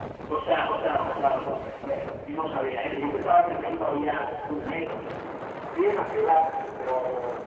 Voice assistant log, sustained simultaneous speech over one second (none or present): none